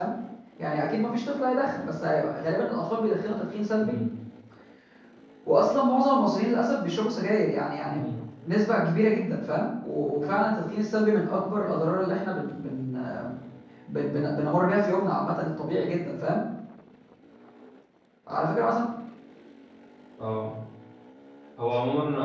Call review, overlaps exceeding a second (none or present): none